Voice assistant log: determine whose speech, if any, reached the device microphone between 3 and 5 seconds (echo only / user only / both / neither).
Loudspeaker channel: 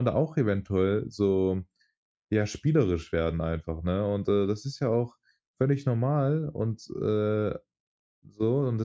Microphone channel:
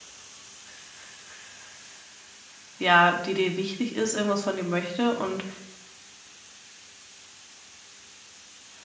user only